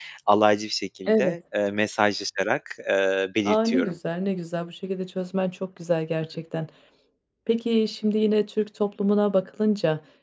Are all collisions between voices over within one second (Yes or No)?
Yes